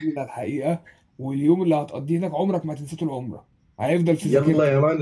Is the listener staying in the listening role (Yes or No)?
No